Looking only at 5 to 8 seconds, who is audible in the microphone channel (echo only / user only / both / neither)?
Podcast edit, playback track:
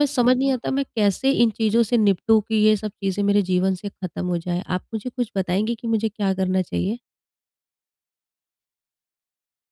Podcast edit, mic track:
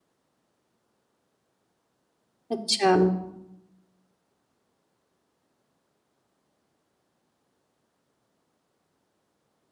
neither